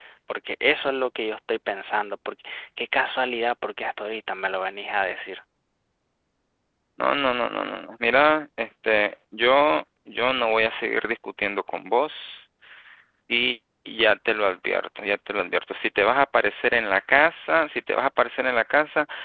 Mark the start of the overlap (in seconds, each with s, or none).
none